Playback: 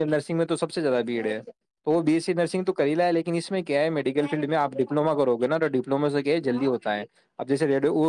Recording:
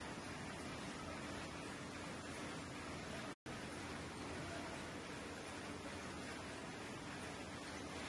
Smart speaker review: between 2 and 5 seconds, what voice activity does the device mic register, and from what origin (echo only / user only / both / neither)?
neither